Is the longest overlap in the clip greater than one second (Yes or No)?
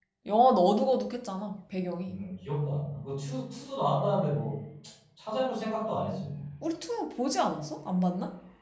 No